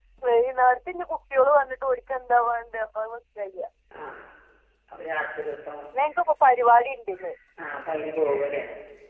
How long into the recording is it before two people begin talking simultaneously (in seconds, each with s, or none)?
none